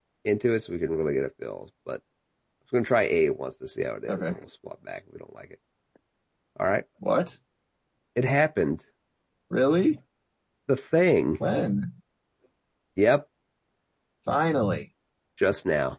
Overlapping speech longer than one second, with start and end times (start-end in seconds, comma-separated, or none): none